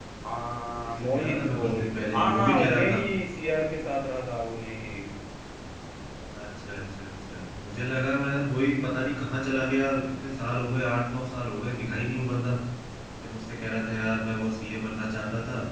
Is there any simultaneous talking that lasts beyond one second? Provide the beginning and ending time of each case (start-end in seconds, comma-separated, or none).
0.9-3.0